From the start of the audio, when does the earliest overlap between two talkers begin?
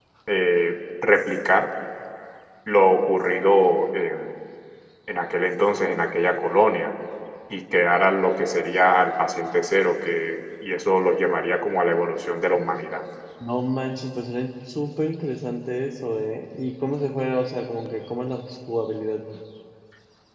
none

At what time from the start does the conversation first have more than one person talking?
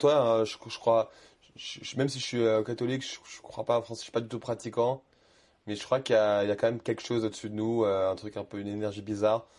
none

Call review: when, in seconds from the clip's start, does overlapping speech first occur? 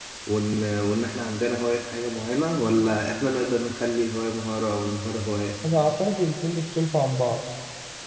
none

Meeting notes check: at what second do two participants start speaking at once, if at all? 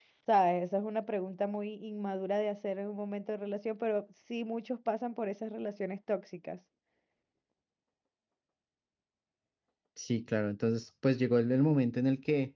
none

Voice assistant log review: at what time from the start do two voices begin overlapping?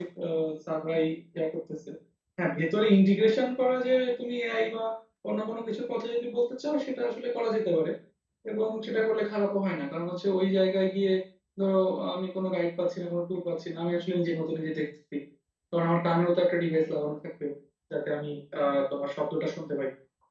none

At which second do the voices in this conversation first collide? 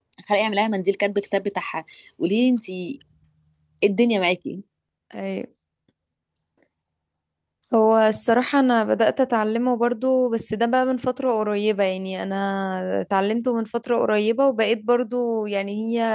none

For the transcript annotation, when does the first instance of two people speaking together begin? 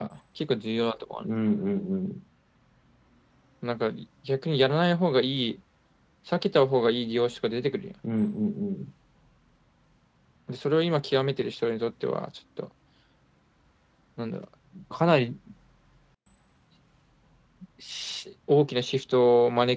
none

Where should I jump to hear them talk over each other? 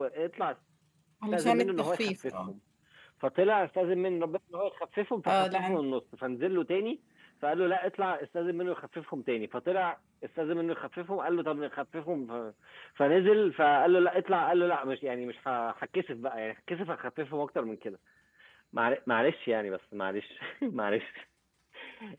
1.3 s

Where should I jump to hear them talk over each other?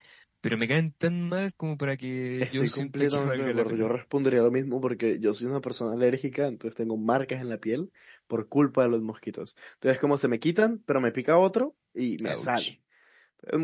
2.4 s

